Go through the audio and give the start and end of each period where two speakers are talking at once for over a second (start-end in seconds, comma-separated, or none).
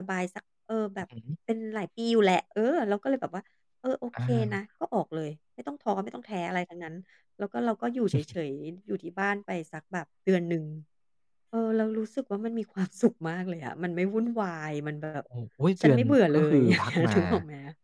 15.8-17.2